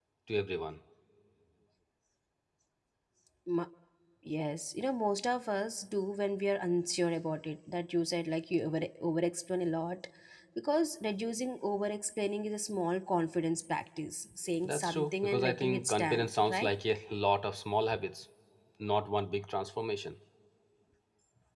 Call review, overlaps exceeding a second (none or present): present